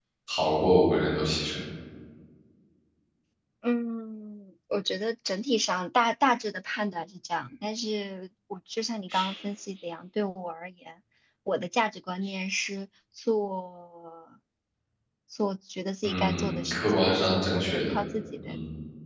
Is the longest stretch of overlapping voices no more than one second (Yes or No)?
No